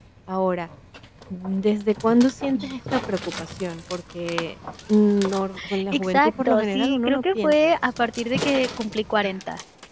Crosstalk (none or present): present